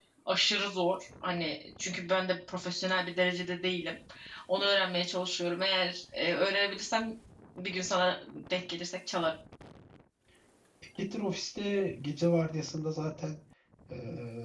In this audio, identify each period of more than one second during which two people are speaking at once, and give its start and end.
none

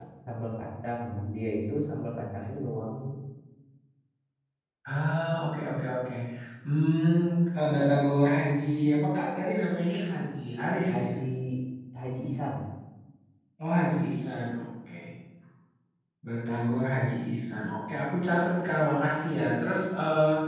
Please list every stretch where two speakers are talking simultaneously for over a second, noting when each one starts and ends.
none

